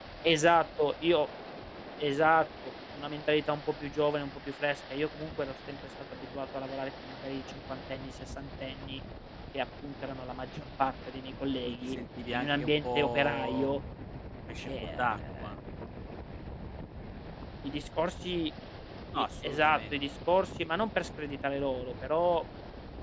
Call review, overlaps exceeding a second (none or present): present